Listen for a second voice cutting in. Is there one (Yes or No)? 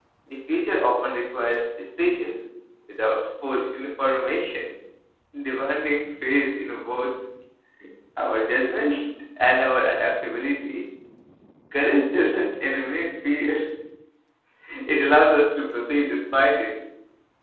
No